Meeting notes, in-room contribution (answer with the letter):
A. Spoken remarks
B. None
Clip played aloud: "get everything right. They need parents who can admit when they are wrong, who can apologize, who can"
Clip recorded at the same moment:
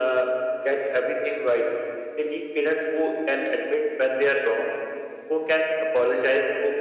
B